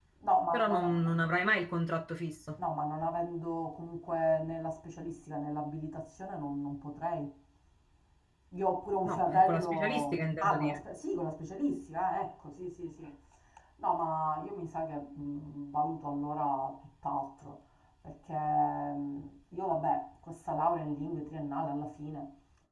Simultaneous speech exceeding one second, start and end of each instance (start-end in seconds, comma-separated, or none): 9.1-10.8